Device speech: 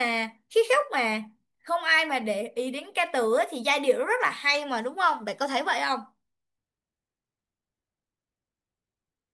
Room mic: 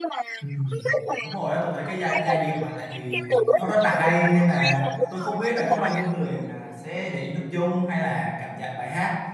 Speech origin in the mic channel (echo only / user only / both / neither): both